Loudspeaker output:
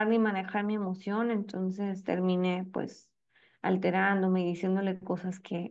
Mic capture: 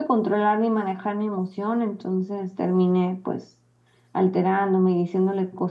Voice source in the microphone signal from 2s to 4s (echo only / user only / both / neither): echo only